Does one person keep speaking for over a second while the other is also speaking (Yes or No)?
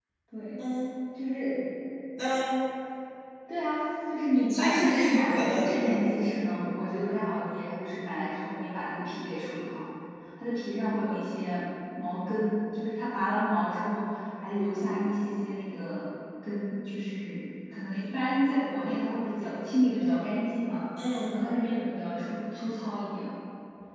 Yes